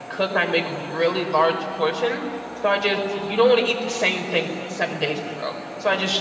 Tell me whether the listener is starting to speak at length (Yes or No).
No